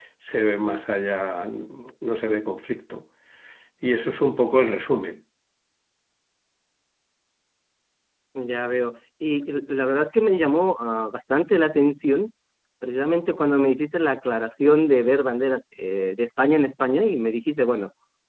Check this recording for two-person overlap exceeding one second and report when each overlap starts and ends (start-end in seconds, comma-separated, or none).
none